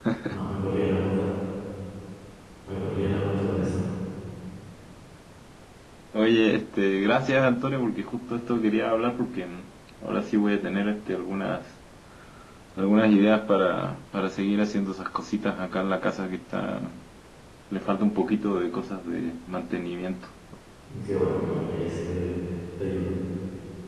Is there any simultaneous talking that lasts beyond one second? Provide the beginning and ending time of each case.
none

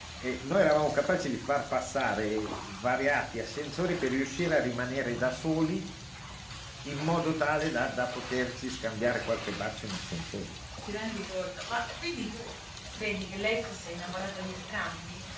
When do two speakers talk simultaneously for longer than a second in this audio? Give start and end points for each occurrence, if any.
none

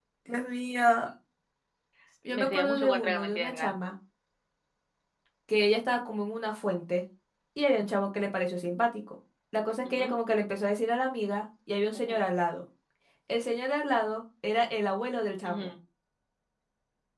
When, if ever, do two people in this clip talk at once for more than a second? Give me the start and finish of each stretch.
2.3-3.7

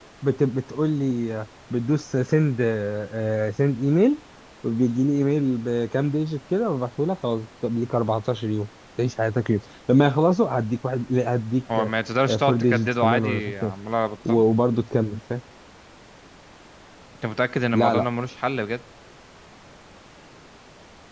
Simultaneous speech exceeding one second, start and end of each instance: 12.4-13.7

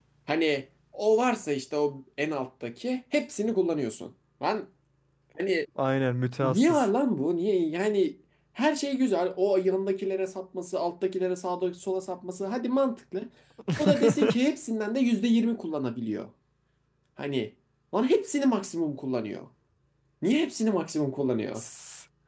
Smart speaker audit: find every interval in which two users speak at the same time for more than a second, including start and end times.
none

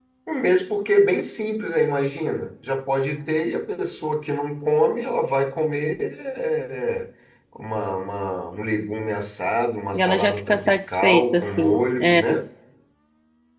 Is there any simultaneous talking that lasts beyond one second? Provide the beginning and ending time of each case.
9.9-12.2

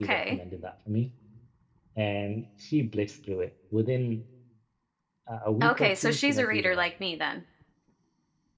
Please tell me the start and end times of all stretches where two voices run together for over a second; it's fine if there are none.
5.6-6.8

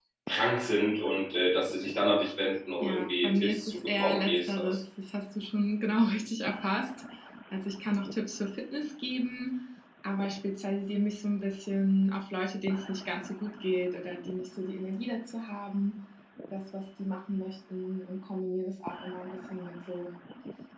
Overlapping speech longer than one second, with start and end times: 2.8-4.8

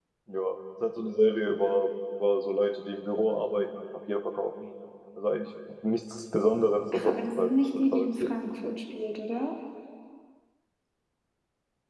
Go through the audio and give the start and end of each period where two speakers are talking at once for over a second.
6.9-8.3

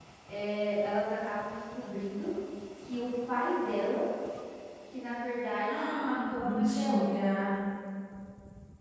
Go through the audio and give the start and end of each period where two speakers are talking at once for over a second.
5.7-7.1

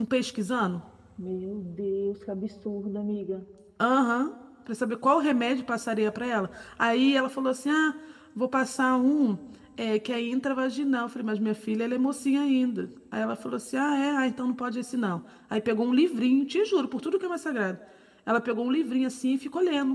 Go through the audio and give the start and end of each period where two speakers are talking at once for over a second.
none

